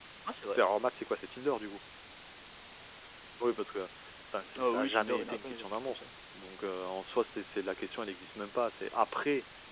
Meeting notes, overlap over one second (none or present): present